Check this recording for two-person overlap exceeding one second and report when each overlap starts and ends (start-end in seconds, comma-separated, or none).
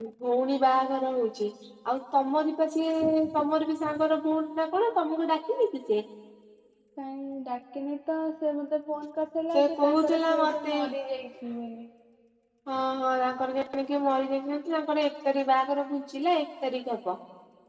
9.5-10.8